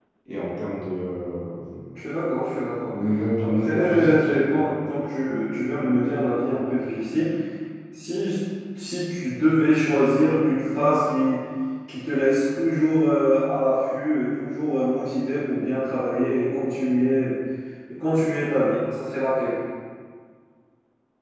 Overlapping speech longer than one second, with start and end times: 3.4-4.7

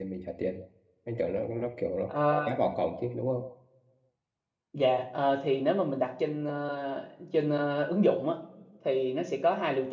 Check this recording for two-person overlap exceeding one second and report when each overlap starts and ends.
none

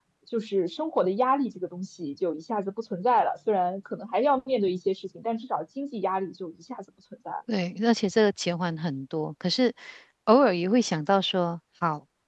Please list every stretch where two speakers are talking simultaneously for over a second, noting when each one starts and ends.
none

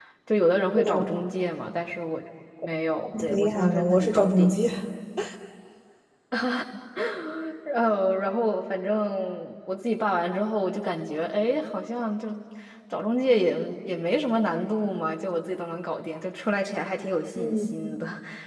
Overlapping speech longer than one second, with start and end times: 3.2-4.5

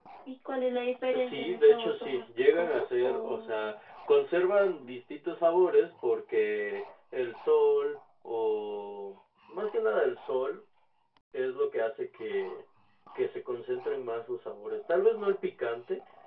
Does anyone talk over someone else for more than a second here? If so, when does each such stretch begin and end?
1.1-3.7

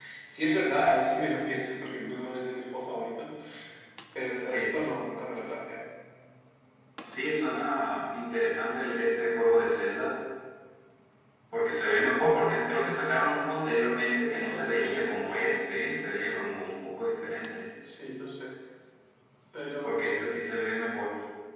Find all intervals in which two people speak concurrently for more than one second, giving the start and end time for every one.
none

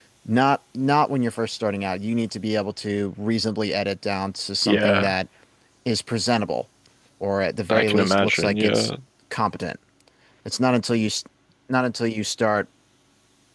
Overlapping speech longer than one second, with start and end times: 7.7-8.9

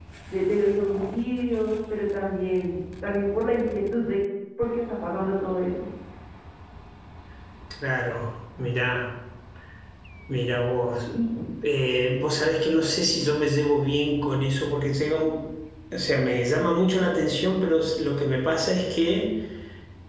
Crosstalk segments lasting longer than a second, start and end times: none

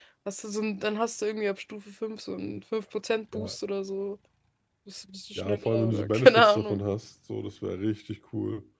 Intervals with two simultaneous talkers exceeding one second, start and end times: 5.4-6.8

